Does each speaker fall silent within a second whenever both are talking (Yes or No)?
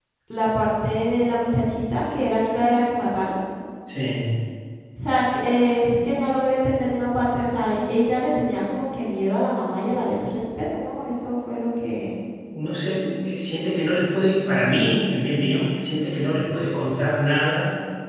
Yes